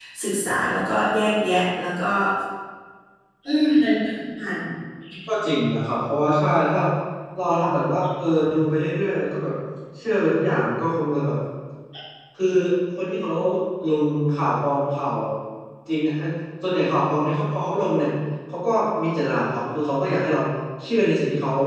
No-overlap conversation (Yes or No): Yes